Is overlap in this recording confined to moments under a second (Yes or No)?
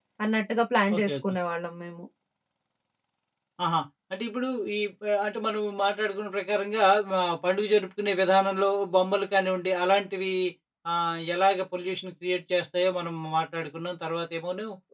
Yes